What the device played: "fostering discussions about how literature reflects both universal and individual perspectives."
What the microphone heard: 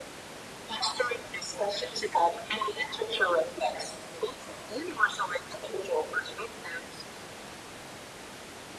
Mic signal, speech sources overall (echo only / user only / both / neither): echo only